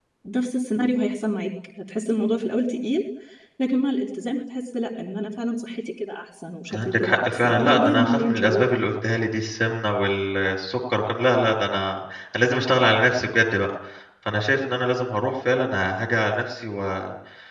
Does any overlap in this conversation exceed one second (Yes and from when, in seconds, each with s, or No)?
Yes, from 6.7 s